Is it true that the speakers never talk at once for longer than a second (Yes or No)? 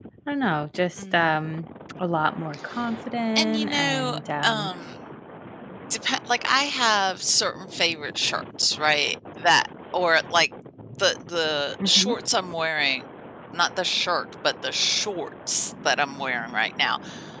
No